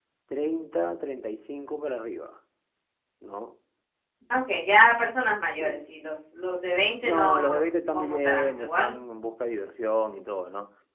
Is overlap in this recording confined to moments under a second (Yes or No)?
No